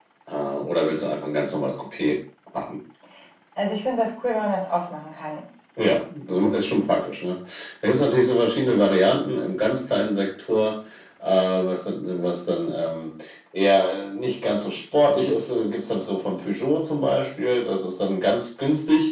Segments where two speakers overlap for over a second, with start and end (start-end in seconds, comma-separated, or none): none